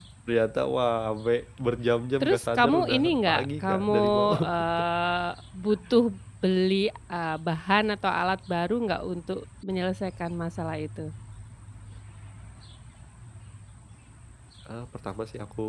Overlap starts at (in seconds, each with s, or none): 2.2 s